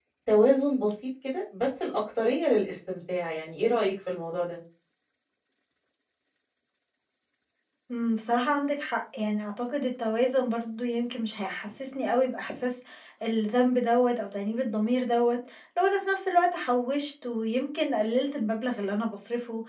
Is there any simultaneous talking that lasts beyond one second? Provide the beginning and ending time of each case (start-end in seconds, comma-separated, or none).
none